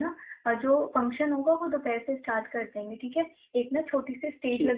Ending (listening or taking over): listening